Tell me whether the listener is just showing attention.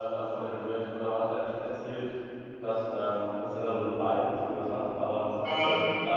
Yes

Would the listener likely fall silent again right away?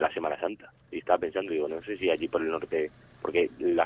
Yes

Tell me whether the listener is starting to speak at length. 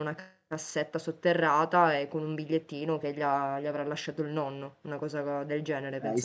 Yes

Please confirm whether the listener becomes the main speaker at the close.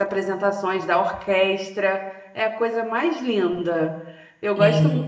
No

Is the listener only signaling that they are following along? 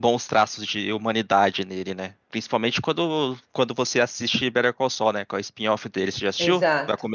No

